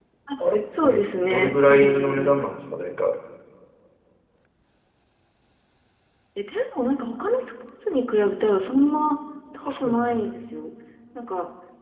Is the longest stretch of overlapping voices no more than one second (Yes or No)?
No